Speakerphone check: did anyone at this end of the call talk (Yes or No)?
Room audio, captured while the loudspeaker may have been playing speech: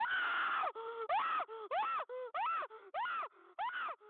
No